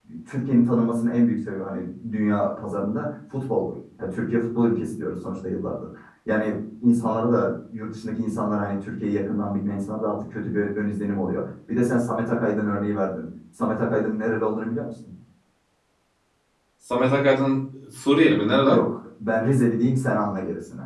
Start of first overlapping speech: none

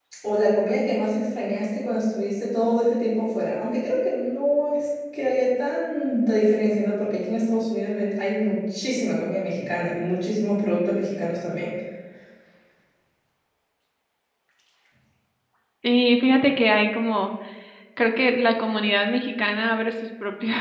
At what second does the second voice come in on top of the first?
none

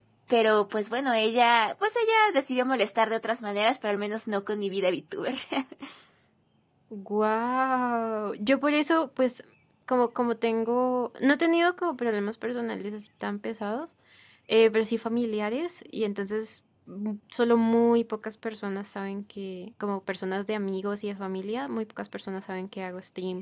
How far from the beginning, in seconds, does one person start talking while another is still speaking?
none

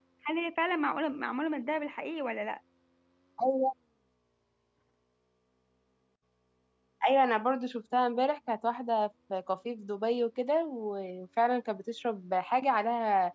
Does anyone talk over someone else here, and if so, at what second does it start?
none

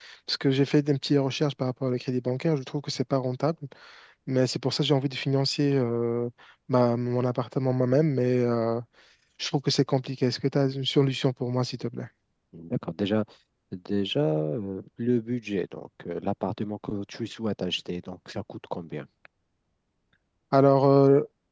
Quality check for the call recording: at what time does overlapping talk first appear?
none

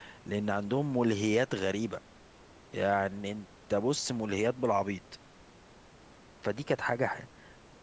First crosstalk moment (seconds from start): none

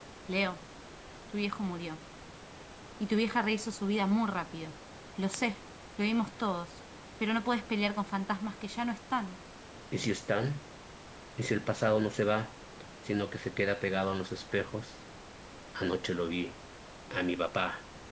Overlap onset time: none

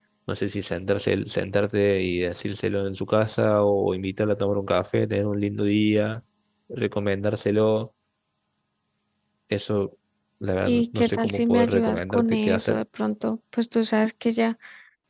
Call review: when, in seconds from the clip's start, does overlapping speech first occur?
11 s

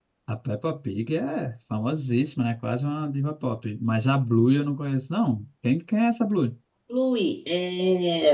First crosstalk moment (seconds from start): none

